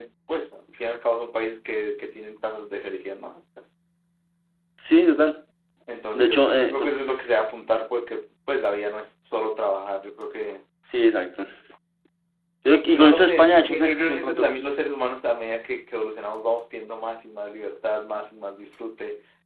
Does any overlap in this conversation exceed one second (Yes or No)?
Yes